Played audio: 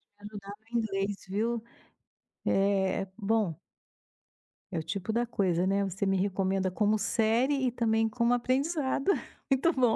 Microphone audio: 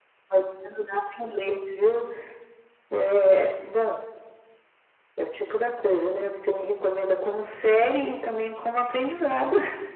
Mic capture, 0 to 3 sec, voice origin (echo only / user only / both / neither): echo only